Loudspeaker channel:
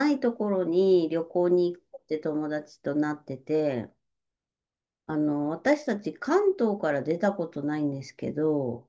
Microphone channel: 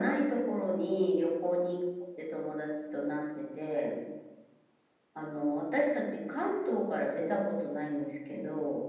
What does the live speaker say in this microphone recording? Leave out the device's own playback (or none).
none